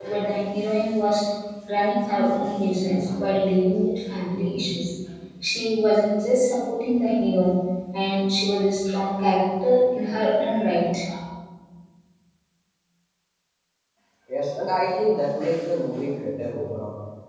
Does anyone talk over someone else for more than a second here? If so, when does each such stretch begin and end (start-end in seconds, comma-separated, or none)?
none